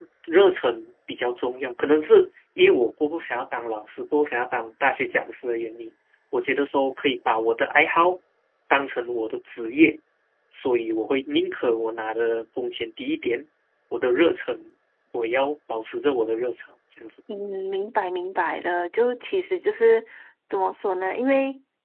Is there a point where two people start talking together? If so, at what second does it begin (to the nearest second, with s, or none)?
none